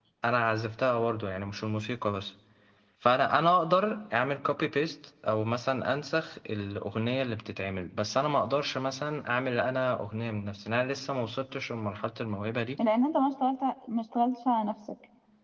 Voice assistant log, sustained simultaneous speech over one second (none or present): none